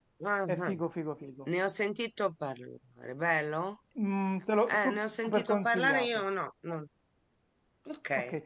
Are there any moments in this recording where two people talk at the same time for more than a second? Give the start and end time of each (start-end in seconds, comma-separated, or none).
4.7-6.2